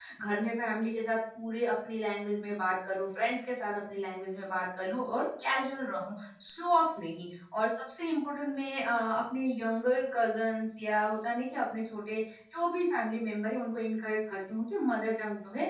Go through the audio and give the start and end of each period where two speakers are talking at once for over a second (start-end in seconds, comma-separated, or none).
none